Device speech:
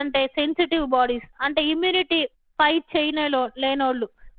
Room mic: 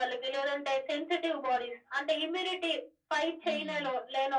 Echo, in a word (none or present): present